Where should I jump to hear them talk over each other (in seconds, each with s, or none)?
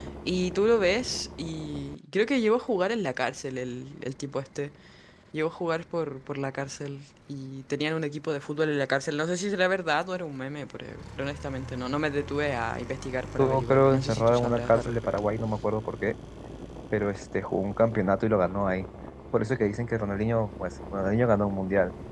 13.7 s